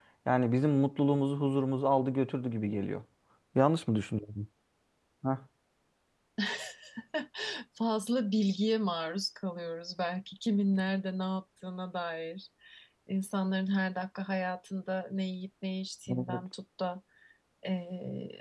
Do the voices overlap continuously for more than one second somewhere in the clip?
No

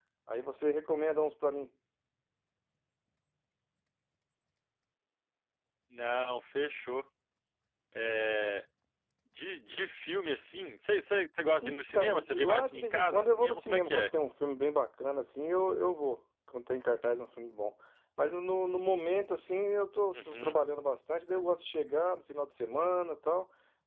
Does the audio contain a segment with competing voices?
Yes, from 11.6 s

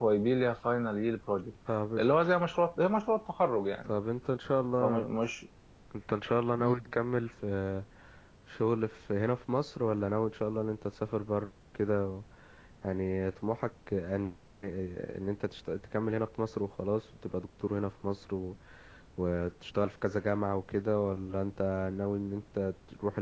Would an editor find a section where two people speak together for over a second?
No

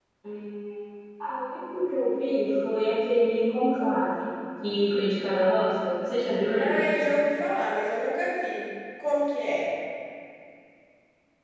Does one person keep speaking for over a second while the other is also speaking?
No

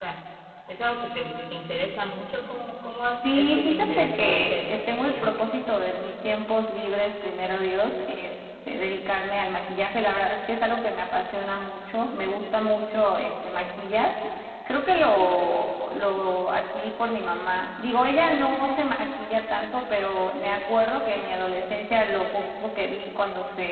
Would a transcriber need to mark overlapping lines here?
Yes, from 3.2 s

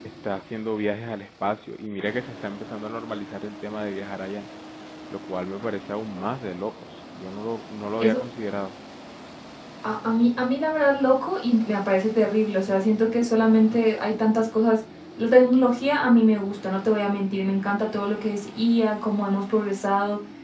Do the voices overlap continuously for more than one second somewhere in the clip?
No

